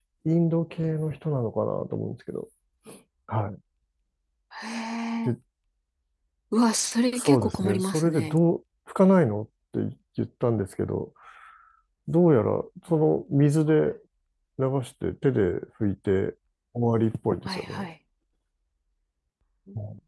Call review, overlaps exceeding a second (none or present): present